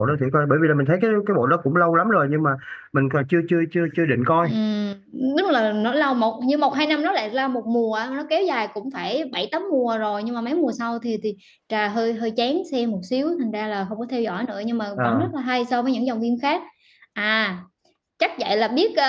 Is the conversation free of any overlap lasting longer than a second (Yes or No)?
Yes